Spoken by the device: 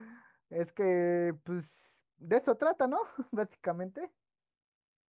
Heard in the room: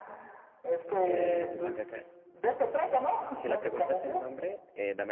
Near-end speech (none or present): present